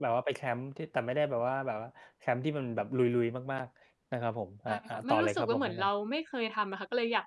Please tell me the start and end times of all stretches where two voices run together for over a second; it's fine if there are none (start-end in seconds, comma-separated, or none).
4.7-5.9